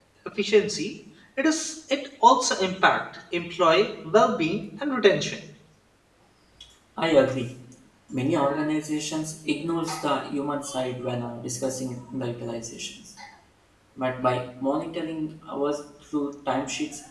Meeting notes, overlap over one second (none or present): none